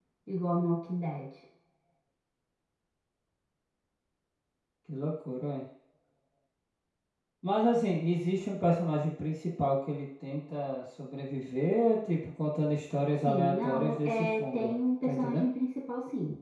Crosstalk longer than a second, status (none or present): present